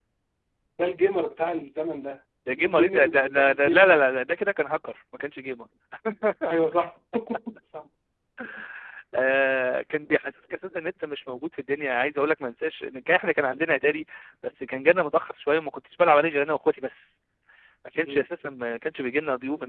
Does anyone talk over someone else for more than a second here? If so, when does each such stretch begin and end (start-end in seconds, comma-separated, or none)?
2.6-4.0